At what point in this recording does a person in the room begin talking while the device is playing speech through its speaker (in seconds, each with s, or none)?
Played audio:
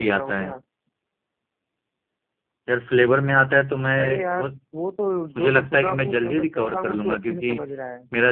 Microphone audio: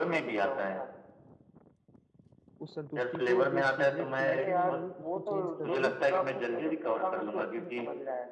2.6 s